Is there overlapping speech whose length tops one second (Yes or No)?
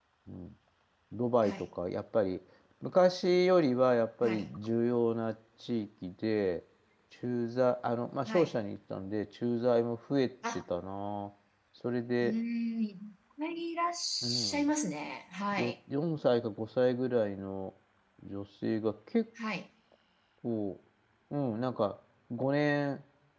No